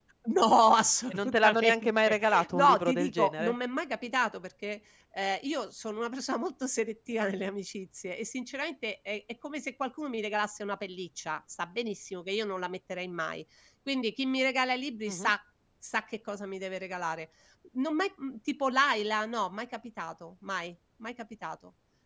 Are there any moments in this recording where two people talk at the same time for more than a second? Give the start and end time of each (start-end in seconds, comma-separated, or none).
1.1-3.6